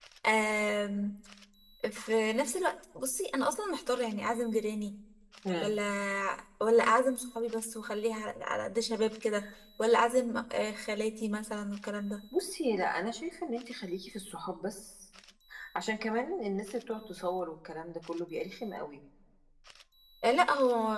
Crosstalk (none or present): none